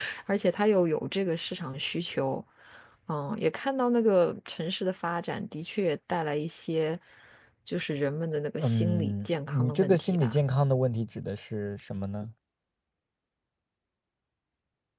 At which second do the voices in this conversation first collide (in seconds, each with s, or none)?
8.6 s